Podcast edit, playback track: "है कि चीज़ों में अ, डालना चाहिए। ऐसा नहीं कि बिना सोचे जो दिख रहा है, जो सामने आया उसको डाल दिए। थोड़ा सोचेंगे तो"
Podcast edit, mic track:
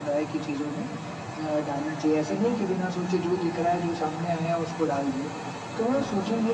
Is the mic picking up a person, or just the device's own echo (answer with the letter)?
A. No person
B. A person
A